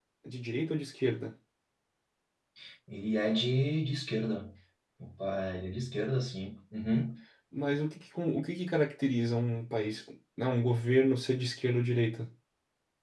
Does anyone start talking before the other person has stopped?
No

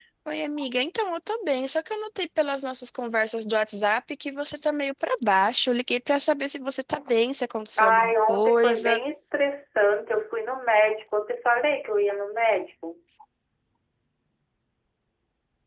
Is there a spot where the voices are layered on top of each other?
Yes, from 7.8 s

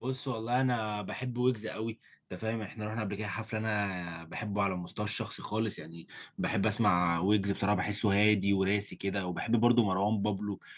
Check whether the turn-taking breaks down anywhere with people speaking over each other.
No

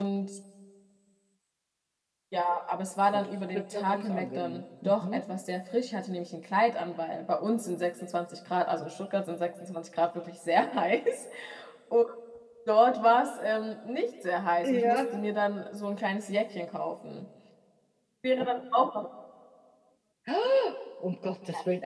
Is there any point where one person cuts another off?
Yes, from 3.1 s

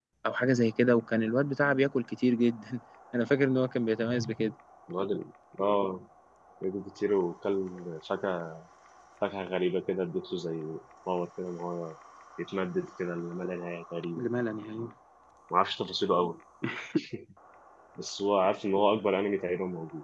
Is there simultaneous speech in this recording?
No

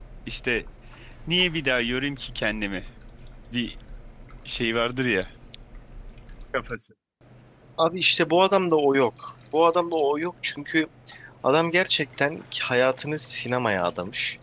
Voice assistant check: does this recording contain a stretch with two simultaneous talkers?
No

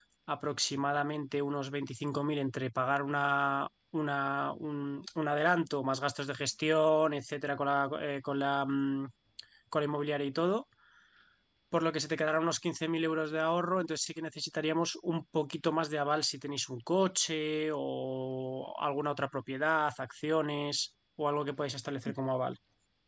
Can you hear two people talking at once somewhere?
No

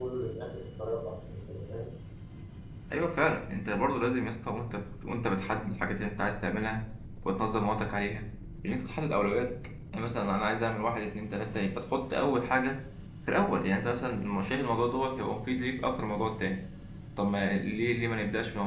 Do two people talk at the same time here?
No

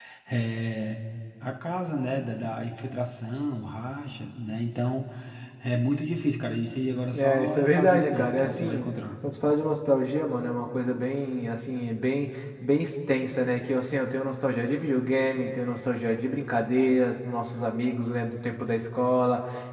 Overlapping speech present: Yes, from 7.1 s

